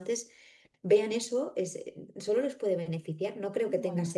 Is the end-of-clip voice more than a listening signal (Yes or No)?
No